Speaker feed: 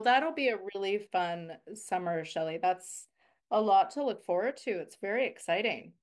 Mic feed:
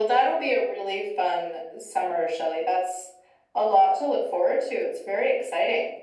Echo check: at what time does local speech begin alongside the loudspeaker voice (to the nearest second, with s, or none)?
none